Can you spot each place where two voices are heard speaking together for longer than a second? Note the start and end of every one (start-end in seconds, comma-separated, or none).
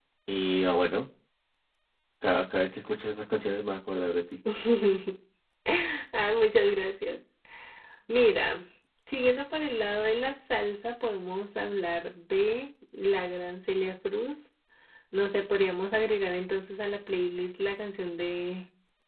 none